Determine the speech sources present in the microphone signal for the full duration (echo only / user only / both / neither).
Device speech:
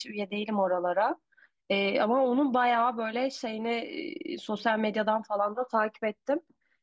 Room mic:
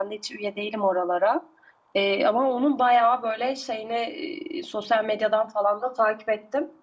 echo only